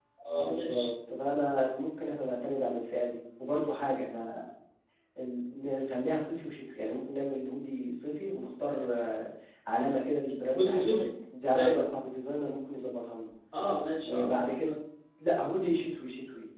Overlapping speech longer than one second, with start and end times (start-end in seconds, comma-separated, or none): none